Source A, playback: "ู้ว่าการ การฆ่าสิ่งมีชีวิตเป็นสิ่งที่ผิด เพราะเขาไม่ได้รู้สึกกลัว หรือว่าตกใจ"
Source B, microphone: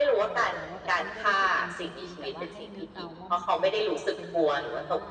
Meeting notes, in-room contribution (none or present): present